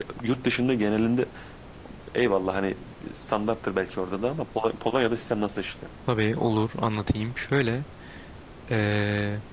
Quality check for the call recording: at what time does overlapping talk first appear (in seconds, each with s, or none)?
none